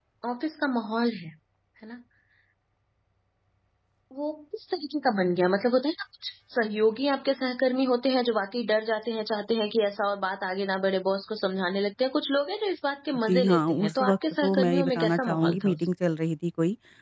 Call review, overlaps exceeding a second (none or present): present